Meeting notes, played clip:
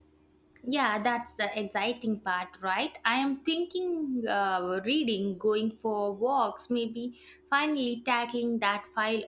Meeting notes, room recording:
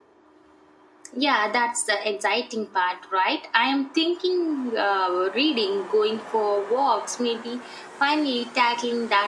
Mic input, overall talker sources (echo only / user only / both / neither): echo only